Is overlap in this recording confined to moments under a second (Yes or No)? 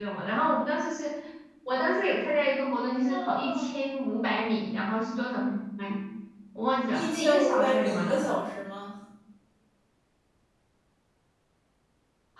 No